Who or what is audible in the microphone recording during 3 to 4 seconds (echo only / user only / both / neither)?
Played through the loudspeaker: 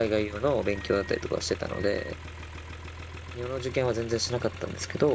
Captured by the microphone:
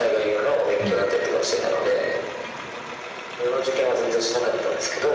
echo only